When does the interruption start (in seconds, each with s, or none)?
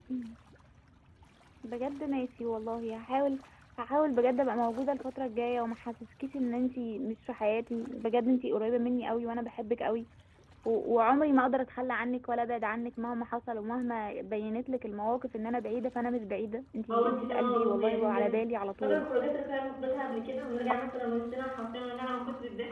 16.9 s